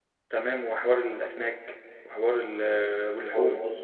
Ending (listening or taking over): taking over